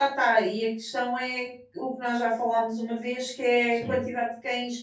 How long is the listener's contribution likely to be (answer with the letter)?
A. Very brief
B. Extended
A